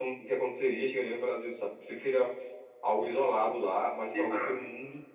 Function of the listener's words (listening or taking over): listening